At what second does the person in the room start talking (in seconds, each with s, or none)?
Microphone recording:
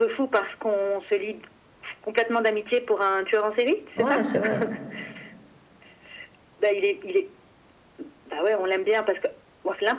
4.0 s